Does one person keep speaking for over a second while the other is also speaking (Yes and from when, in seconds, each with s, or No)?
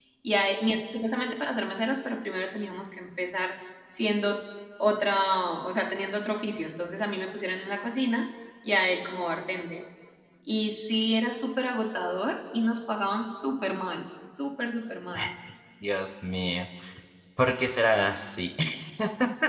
No